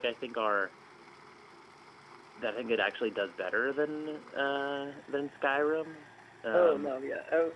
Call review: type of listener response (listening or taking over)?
taking over